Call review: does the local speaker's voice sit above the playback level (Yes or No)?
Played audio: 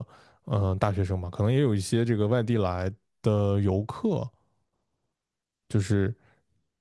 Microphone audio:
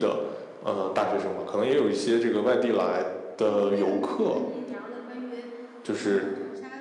No